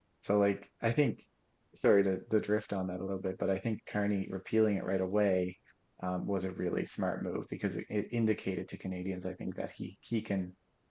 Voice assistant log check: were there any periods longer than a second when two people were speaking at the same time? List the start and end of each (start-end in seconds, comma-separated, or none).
none